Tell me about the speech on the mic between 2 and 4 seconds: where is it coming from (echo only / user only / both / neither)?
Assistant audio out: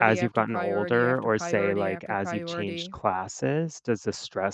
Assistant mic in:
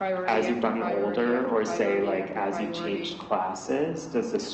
echo only